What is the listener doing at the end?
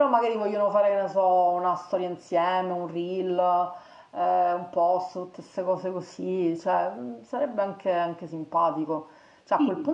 listening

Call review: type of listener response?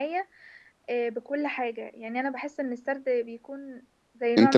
taking over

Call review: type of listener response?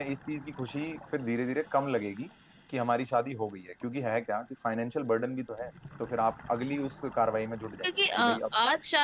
taking over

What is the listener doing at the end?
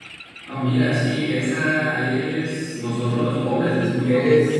taking over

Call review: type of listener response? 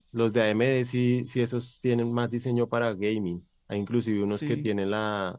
listening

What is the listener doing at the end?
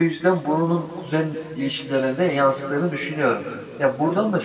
listening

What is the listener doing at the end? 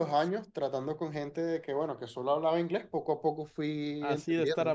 taking over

